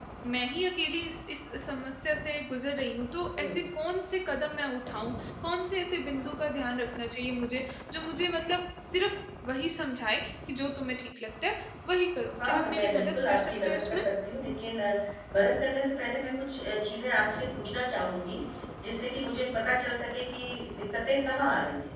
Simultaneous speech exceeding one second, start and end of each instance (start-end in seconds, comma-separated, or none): 12.4-14.0